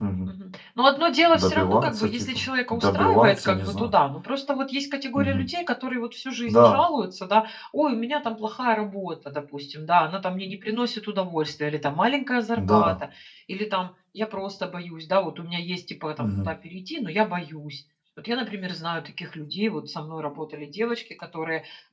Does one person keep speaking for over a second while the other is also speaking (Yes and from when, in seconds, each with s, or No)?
Yes, from 1.3 s